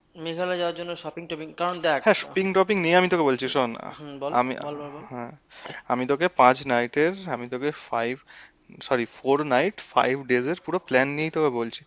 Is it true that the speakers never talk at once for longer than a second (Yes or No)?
Yes